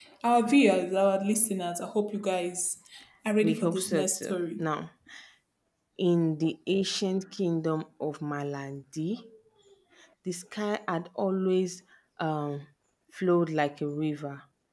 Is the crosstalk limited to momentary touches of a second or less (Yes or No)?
No